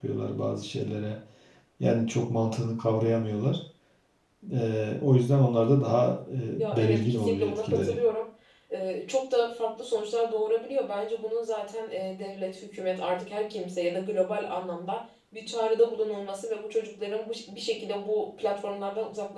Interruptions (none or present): present